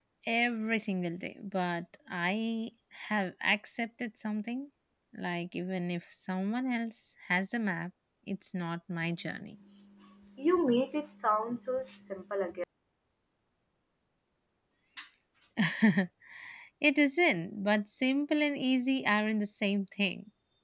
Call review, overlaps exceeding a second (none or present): none